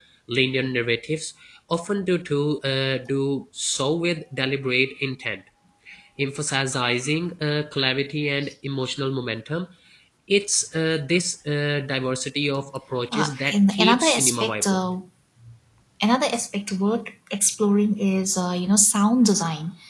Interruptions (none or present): present